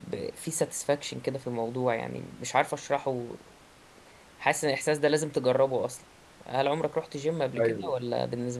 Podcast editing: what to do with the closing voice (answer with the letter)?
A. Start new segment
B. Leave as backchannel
B